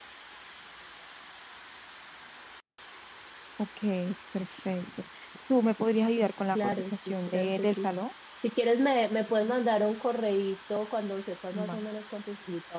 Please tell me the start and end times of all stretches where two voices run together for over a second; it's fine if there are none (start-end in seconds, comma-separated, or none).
6.5-7.9